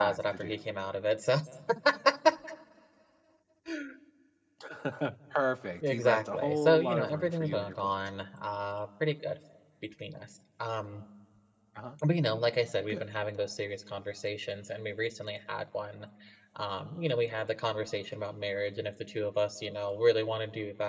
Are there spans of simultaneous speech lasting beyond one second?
Yes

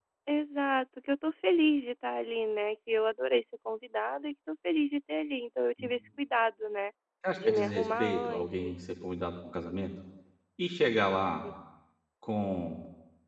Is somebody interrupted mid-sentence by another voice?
Yes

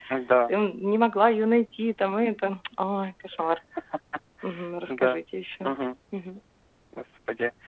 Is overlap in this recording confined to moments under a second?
Yes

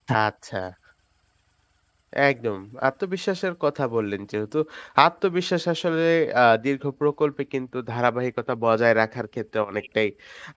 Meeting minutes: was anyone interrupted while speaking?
No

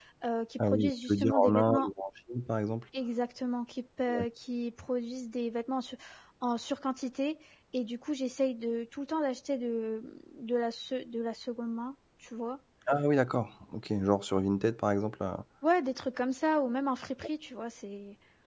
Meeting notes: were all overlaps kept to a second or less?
No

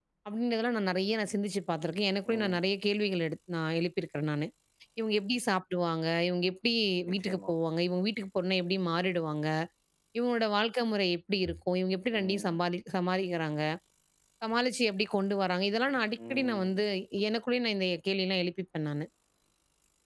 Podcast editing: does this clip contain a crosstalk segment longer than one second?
No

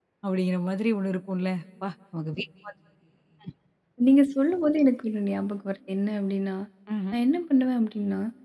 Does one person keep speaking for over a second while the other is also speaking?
No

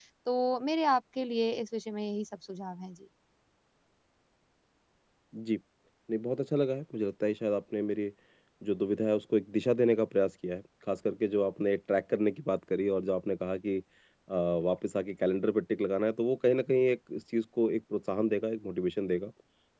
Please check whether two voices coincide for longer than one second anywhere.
No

